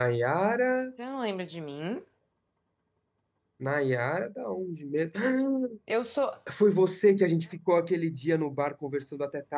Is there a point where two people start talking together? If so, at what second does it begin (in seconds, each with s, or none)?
none